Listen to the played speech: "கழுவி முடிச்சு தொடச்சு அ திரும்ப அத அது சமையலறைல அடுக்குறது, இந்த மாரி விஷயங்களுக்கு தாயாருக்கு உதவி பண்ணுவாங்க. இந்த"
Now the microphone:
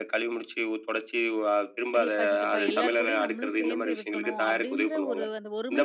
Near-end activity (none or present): present